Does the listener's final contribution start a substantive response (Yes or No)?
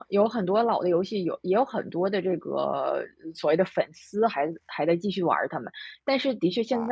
No